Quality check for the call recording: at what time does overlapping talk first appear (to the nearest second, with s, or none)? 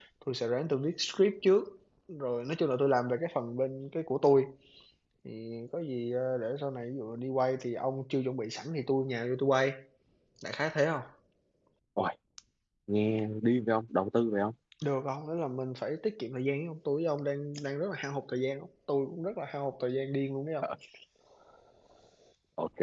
none